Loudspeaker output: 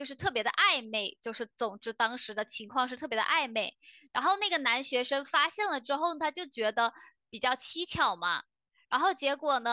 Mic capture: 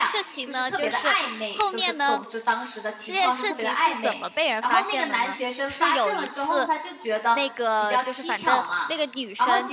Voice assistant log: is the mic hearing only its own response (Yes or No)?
No